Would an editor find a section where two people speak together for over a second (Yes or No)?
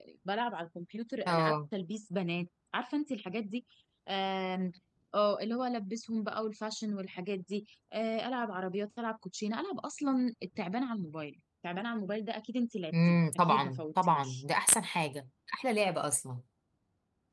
Yes